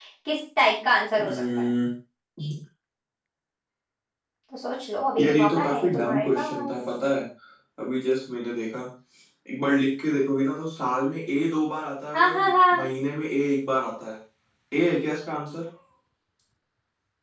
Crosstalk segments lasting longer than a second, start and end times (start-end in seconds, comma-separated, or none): 5.2-6.8